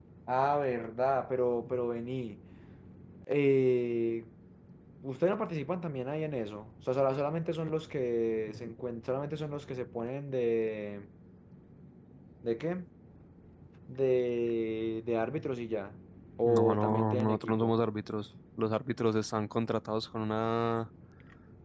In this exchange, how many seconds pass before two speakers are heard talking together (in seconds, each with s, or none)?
16.4 s